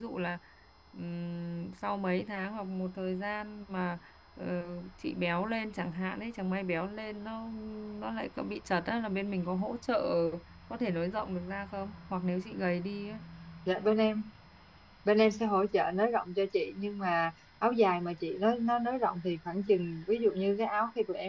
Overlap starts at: none

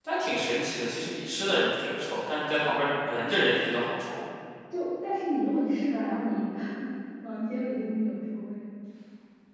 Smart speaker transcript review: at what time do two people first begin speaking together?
none

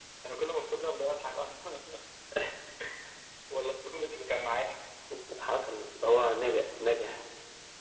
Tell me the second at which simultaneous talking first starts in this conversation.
none

